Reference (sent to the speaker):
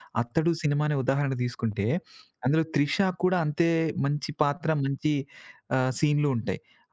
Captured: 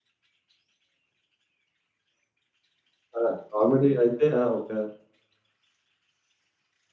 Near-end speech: present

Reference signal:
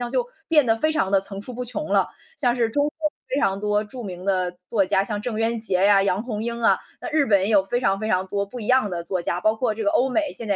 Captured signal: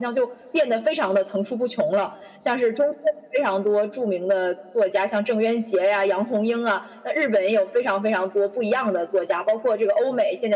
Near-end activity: none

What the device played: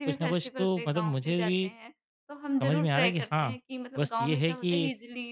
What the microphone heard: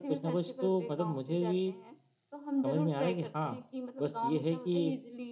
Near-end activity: none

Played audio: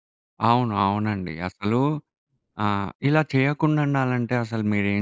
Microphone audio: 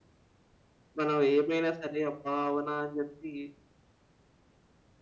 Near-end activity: present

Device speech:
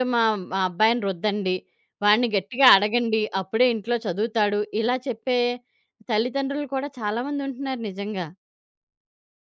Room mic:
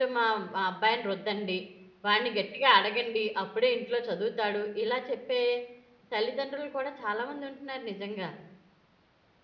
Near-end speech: none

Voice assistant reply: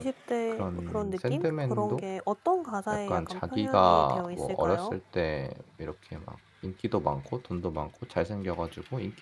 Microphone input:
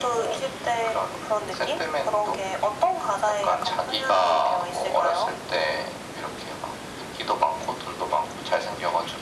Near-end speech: none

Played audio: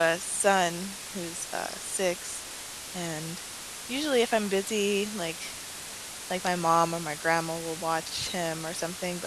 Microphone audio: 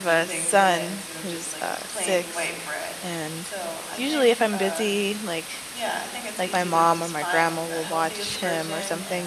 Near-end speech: present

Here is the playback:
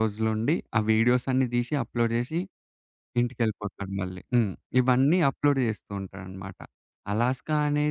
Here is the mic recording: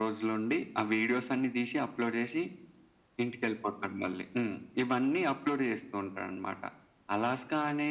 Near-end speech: none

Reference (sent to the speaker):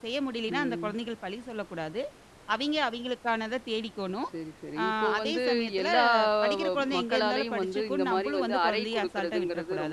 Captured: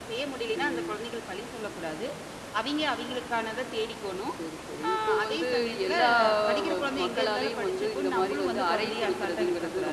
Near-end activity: none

